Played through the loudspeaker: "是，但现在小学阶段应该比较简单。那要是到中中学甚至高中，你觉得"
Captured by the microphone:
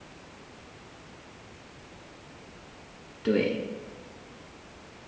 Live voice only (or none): 对